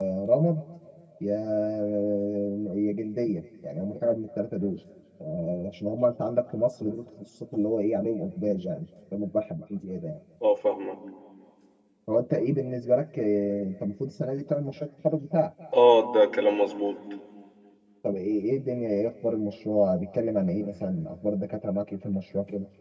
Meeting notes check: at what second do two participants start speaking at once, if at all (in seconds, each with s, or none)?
none